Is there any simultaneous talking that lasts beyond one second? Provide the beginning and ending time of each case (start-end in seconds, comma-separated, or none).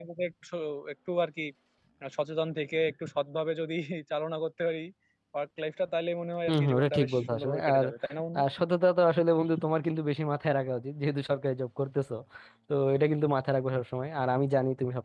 6.5-7.8